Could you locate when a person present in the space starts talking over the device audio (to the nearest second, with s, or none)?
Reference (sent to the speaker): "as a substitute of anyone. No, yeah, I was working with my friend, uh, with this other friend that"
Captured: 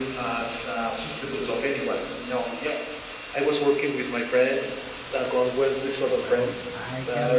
6 s